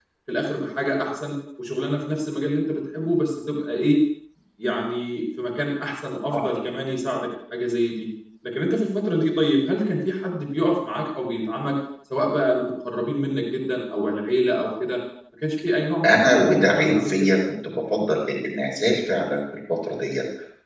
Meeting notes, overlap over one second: present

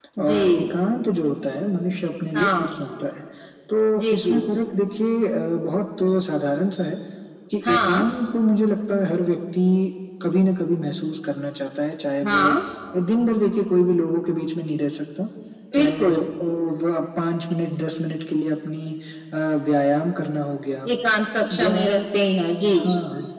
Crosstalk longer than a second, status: none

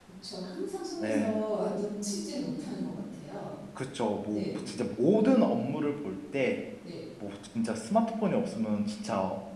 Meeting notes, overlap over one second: none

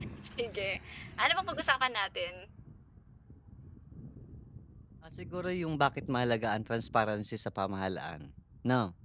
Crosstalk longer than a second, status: none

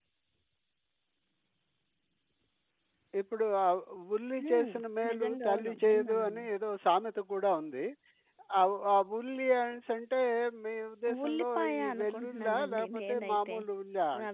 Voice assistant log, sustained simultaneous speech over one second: present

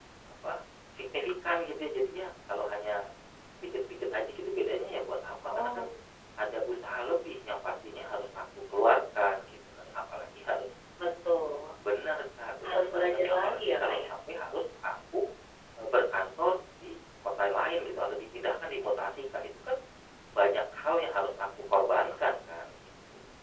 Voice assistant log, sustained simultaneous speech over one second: present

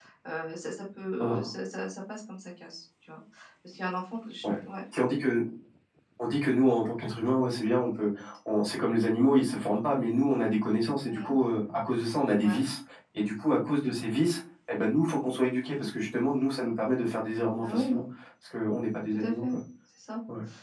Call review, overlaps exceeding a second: none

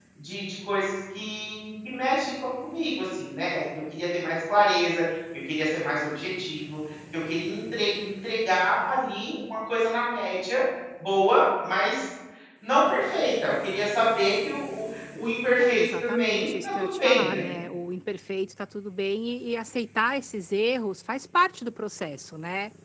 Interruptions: present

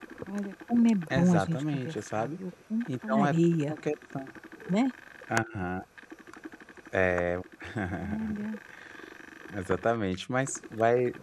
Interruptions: present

